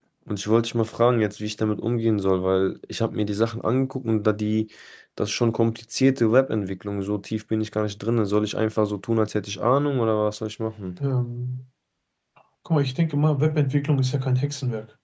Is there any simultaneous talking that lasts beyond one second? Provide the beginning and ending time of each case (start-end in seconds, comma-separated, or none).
none